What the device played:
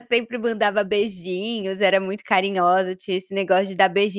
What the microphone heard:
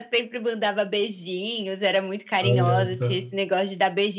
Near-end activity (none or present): present